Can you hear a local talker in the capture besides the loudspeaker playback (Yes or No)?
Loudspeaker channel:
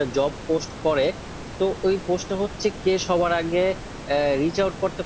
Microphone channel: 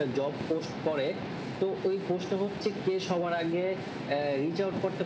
No